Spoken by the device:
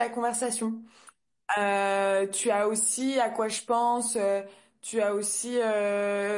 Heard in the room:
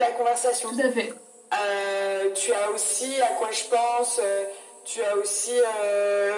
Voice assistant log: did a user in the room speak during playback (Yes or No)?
Yes